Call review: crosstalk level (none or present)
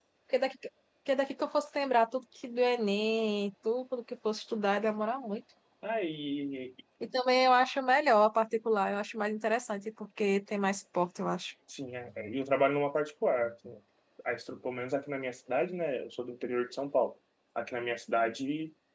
none